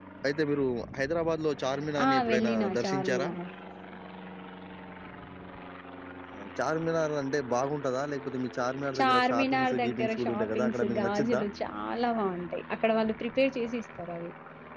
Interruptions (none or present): present